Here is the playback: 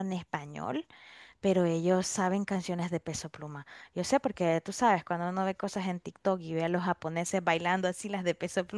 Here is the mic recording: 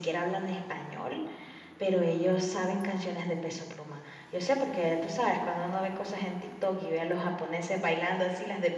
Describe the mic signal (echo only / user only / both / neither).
echo only